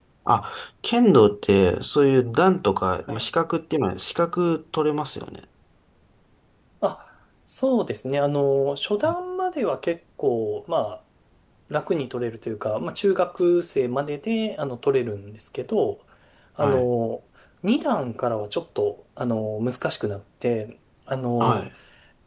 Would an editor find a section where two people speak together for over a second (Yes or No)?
No